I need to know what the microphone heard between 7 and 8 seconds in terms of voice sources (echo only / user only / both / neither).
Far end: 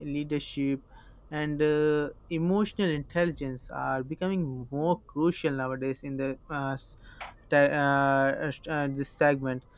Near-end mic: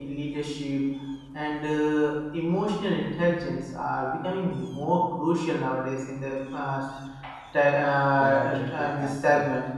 echo only